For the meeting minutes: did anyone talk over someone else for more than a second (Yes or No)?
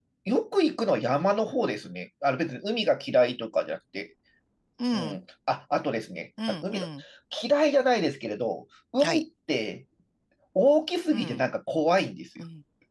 No